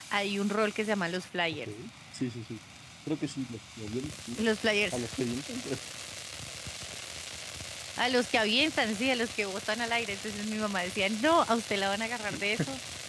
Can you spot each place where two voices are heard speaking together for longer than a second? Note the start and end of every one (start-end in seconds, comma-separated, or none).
none